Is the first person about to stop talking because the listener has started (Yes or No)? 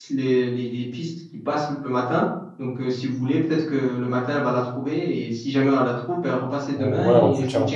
Yes